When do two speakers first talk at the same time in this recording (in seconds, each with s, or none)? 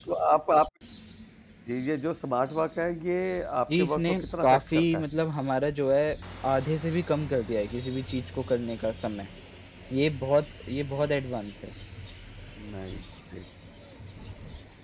3.7 s